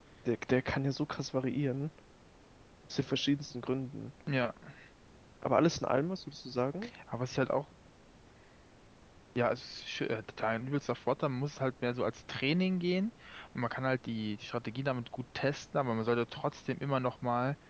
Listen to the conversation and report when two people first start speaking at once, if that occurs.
none

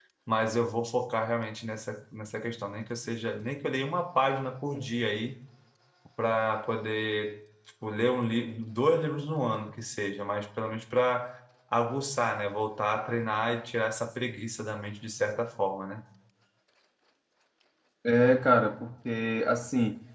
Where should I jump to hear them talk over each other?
none

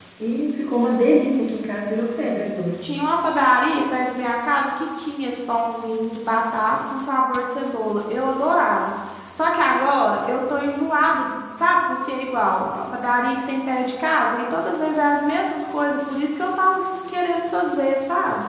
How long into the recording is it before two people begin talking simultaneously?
none

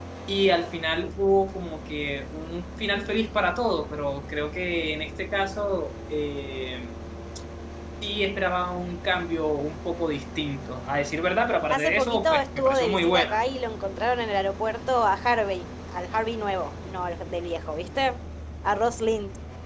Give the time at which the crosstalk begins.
11.7 s

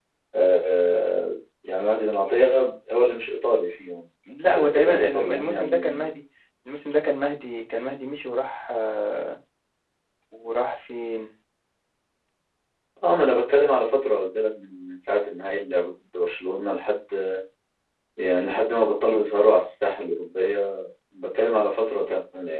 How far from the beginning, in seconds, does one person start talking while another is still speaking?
4.6 s

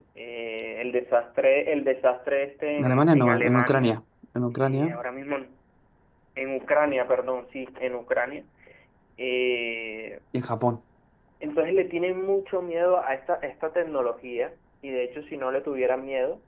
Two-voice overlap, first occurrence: 2.8 s

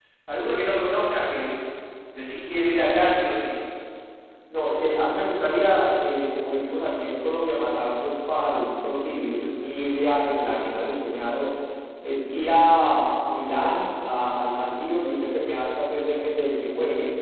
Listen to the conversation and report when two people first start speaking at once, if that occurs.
none

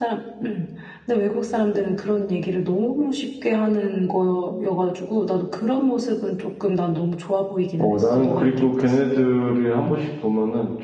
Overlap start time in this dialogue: 7.8 s

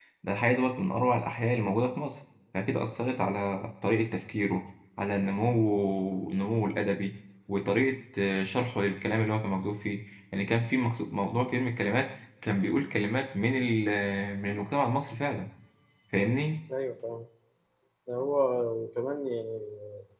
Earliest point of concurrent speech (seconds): none

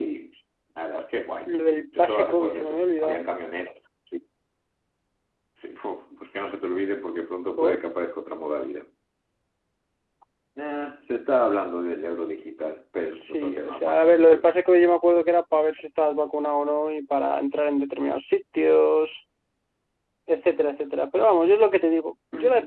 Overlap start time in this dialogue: 2.0 s

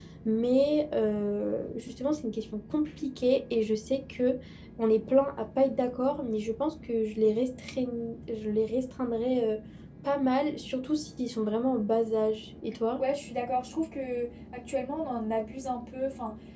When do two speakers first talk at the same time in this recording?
none

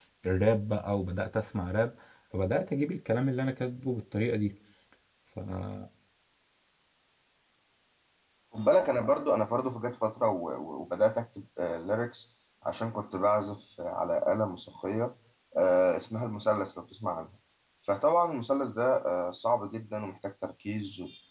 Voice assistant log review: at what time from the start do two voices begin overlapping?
none

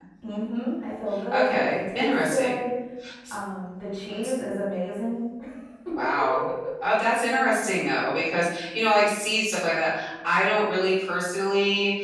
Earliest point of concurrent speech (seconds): 1.3 s

